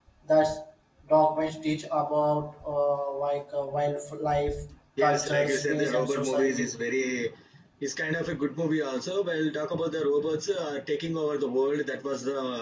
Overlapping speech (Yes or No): Yes